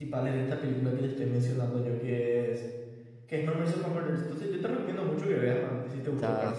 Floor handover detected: Yes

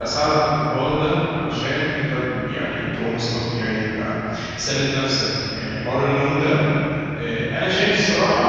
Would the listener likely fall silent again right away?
Yes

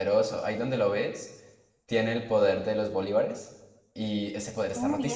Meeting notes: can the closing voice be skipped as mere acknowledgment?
No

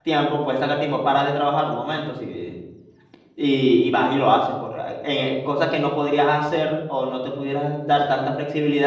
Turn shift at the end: No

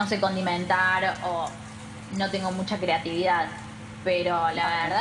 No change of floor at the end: Yes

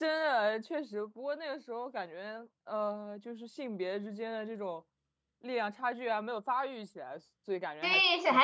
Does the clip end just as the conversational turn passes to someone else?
Yes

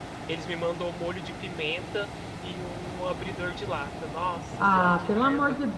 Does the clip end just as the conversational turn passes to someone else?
Yes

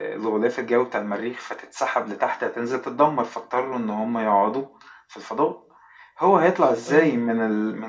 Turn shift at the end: No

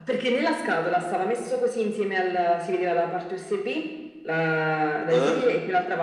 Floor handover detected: No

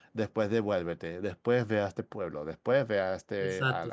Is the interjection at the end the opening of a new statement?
Yes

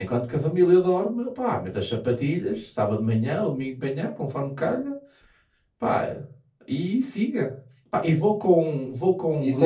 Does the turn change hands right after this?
Yes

